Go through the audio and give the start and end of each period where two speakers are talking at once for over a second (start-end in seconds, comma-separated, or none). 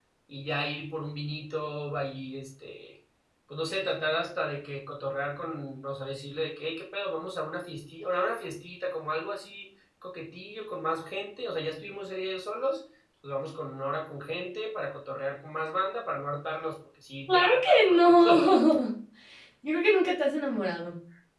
17.3-18.6